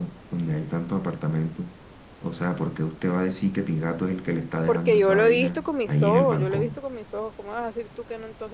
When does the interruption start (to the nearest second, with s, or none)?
5 s